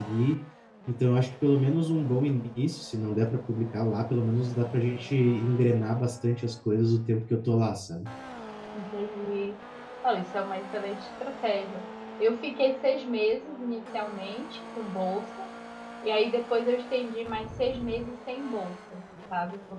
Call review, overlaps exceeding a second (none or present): none